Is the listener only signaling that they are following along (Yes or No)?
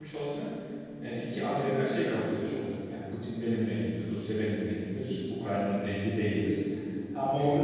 Yes